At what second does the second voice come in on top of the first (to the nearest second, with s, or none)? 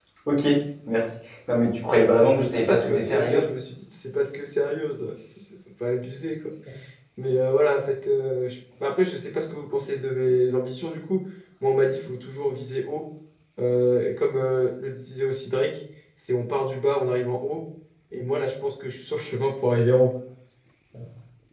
2 s